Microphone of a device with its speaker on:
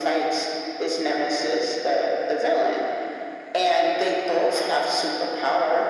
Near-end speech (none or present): none